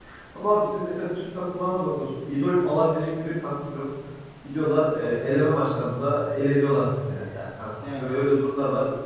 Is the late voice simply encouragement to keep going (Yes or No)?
Yes